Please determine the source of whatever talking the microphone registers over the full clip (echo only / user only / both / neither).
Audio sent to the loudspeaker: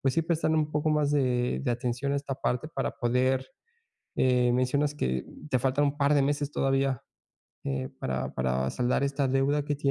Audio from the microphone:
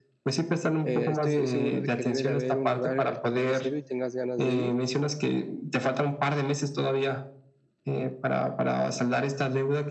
both